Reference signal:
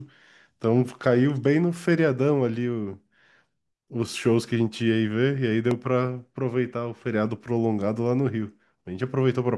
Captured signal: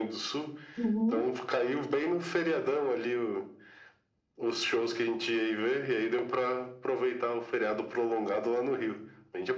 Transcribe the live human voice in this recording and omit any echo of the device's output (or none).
Uhum.